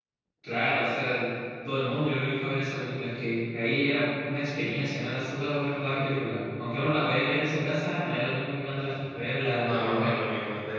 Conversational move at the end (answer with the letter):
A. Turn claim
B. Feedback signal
A